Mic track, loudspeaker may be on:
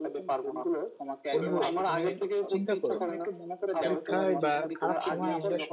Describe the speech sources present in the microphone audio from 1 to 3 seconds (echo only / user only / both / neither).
both